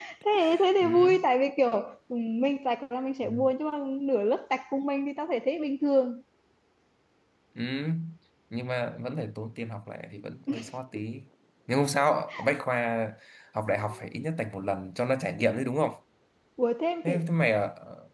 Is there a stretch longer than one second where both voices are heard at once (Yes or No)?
No